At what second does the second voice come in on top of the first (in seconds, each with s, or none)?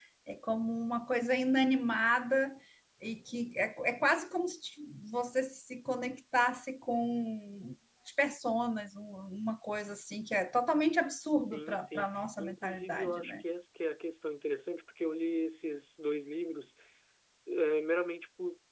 11.2 s